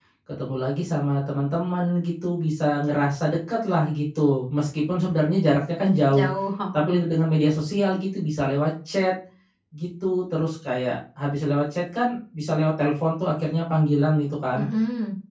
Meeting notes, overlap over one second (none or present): none